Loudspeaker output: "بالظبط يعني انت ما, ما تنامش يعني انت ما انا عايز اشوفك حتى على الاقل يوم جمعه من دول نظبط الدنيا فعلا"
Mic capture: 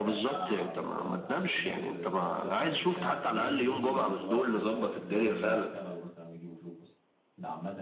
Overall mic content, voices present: both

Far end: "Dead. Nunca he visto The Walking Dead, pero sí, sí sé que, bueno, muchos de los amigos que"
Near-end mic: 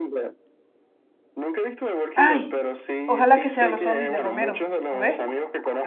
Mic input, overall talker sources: both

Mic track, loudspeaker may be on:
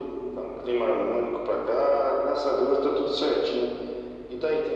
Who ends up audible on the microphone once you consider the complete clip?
echo only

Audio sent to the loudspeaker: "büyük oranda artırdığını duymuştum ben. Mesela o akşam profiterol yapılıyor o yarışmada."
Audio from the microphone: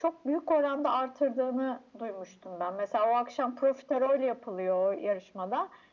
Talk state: echo only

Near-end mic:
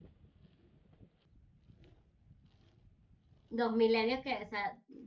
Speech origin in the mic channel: user only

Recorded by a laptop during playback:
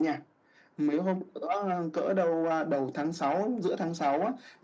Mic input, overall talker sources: echo only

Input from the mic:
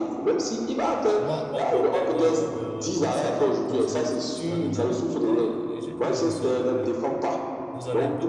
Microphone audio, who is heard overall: both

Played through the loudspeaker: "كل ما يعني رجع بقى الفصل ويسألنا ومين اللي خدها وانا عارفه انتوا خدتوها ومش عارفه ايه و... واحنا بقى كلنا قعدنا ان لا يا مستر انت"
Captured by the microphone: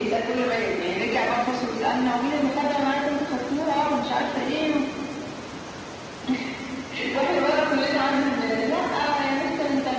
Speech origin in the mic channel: echo only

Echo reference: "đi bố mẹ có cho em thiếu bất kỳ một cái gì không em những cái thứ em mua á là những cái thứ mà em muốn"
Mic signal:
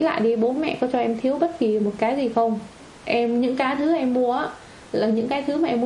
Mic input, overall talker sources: echo only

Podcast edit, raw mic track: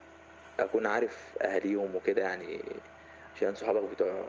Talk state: echo only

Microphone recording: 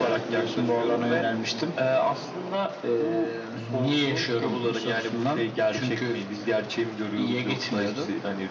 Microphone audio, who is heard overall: echo only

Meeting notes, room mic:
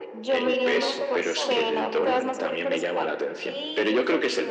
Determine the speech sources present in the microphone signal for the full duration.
both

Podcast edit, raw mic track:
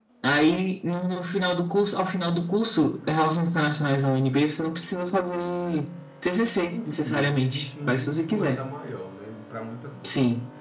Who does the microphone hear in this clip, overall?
both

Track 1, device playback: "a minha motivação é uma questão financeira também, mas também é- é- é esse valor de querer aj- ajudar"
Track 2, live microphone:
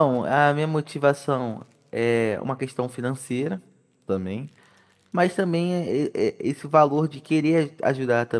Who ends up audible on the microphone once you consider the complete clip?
echo only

